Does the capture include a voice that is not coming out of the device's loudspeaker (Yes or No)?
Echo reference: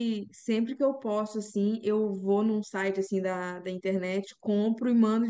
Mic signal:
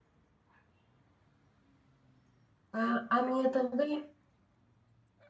Yes